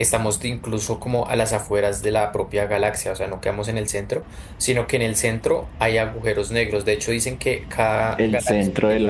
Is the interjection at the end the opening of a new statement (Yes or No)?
Yes